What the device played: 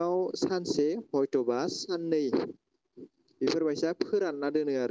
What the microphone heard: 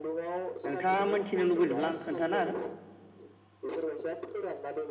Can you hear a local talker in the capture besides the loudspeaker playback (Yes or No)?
Yes